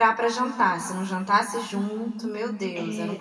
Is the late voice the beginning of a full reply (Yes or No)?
Yes